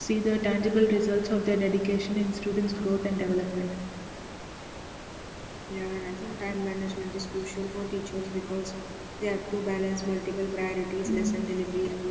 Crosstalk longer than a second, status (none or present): none